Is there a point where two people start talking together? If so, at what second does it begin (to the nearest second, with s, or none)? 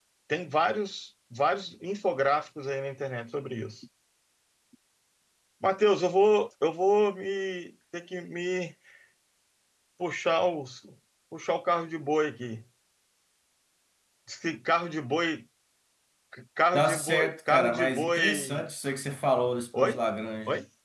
17 s